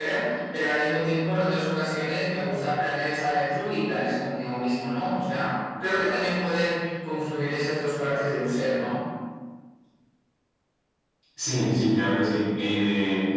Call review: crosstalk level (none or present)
none